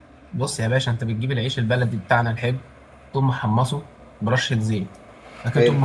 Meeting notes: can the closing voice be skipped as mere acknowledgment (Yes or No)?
Yes